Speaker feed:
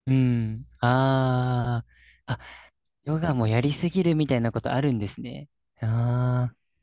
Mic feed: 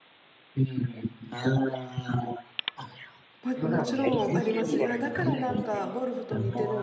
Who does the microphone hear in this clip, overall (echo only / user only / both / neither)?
both